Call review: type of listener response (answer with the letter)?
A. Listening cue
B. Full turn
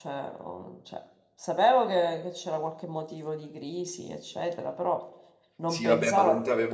B